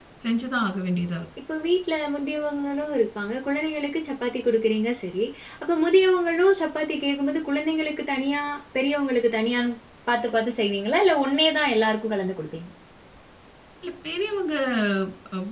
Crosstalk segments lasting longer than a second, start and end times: none

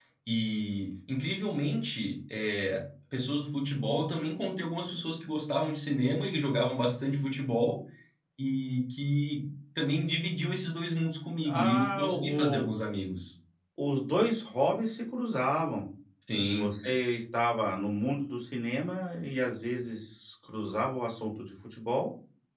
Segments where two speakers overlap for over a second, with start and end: 11.4-12.7

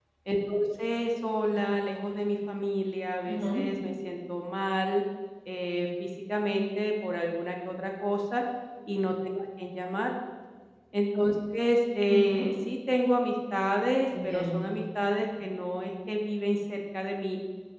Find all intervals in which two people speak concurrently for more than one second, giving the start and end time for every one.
none

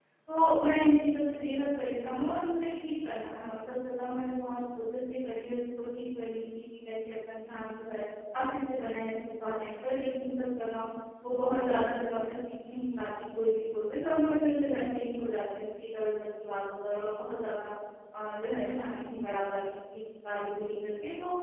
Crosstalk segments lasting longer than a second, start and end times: none

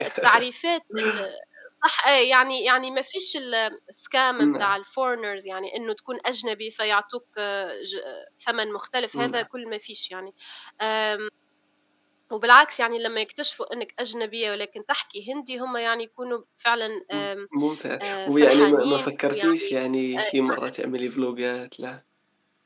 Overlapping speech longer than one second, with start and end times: 18.0-19.7

